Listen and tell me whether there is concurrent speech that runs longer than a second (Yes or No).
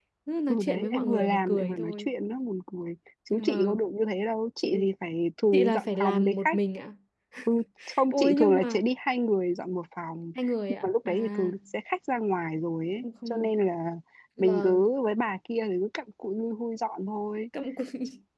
Yes